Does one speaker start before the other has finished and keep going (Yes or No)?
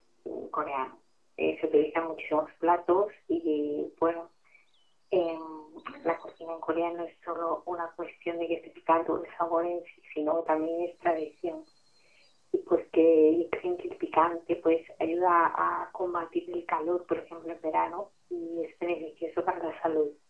No